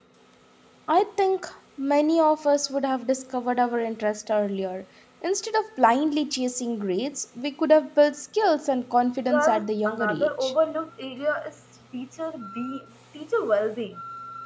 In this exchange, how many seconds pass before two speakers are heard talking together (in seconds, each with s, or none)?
9.3 s